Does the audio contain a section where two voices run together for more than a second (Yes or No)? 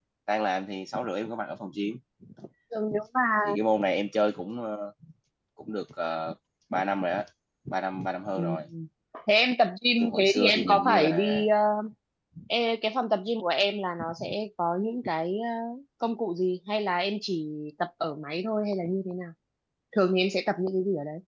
Yes